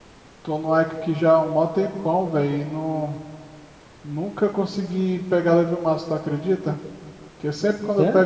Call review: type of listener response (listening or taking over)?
listening